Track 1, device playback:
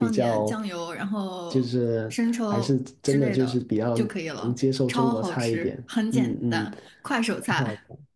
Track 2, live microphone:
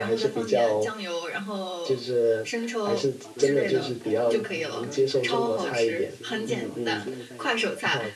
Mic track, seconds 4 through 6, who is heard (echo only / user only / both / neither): both